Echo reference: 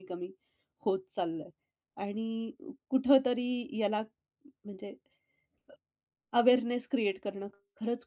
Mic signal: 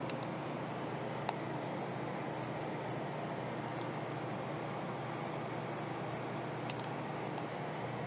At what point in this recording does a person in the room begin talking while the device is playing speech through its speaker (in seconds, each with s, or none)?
none